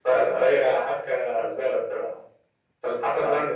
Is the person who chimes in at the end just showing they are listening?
Yes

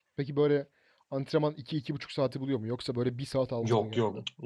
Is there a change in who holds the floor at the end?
Yes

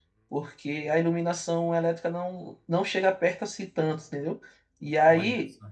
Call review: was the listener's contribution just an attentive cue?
Yes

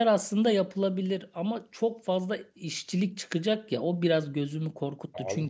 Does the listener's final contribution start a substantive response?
No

